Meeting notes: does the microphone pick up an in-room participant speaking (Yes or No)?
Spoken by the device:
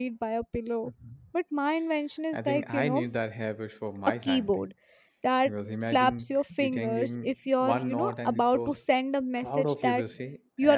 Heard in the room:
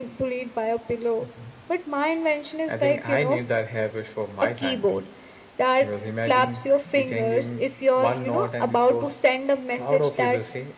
No